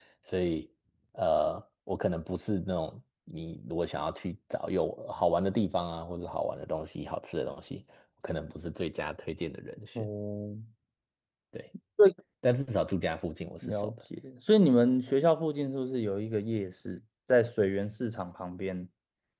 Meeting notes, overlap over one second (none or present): none